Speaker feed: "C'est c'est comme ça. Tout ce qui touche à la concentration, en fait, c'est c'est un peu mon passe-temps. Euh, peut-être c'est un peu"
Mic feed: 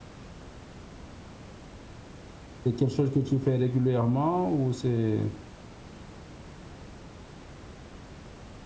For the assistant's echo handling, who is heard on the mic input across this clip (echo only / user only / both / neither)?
user only